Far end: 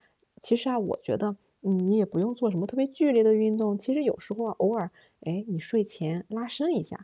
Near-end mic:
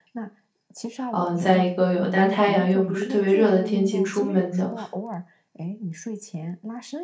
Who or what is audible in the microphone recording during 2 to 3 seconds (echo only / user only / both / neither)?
both